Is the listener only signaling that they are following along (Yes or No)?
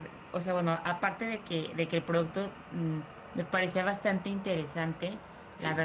Yes